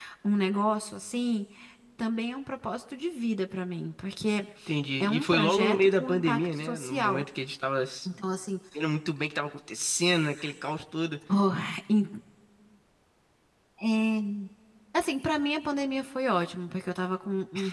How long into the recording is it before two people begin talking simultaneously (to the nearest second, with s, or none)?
5 s